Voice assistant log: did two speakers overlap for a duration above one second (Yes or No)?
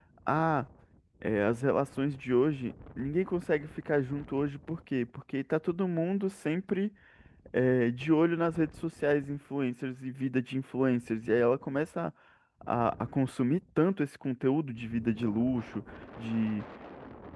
No